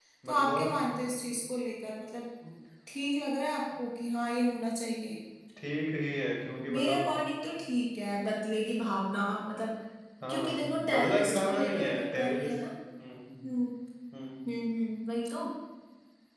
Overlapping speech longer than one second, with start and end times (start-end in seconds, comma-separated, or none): 10.3-12.5